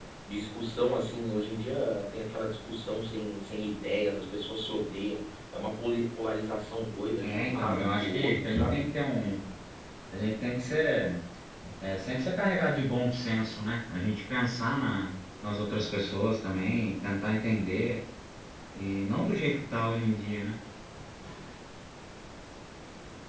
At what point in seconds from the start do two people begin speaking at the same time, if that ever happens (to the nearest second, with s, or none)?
7 s